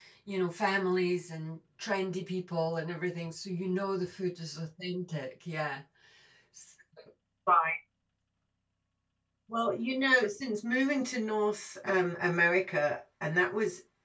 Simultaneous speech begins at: none

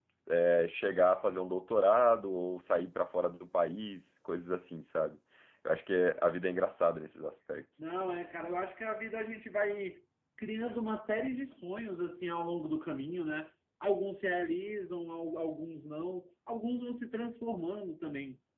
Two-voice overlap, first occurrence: none

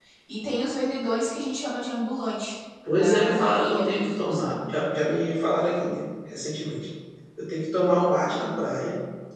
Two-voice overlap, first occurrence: 2.9 s

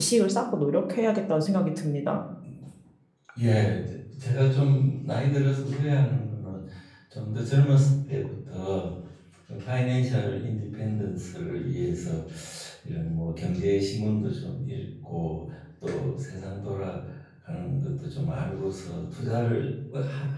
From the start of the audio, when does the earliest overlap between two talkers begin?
none

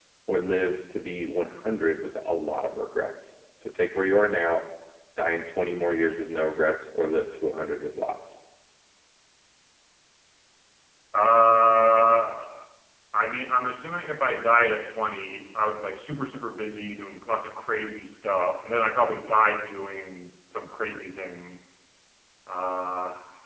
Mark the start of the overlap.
none

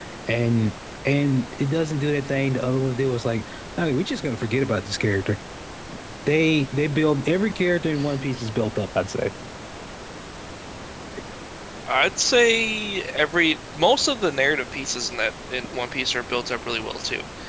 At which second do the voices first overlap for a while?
none

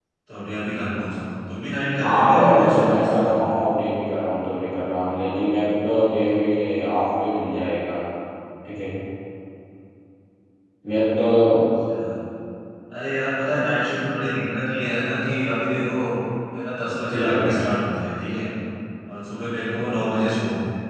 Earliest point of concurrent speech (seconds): 2.0 s

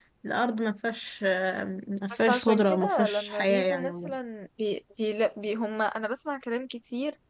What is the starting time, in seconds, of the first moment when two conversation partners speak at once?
2.1 s

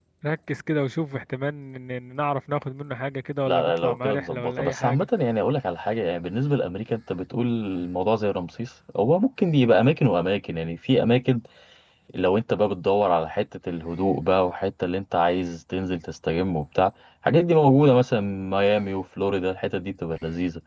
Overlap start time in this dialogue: 3.5 s

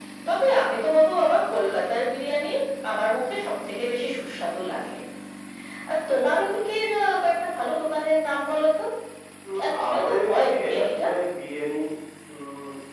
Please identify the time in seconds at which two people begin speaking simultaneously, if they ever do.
9.6 s

